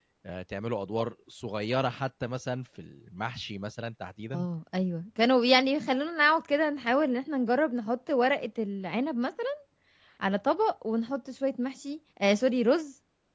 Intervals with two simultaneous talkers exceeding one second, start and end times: none

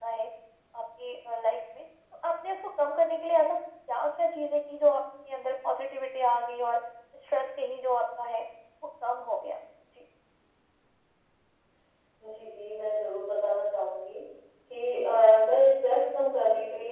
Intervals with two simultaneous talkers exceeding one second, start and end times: none

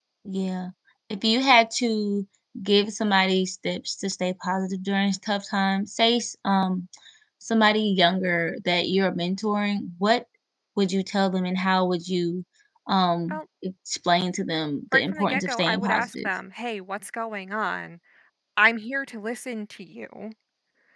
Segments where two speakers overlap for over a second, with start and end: 14.9-16.3

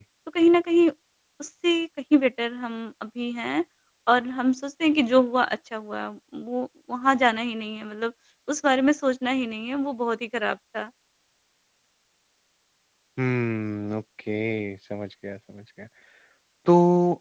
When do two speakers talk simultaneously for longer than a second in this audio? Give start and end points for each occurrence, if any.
none

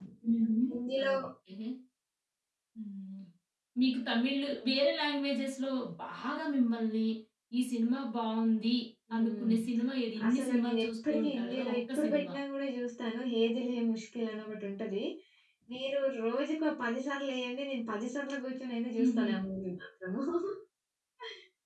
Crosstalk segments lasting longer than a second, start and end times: 10.3-12.3

